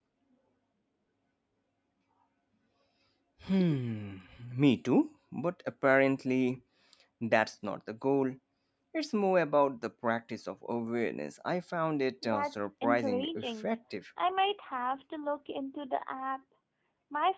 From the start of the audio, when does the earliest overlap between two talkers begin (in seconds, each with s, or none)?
12.2 s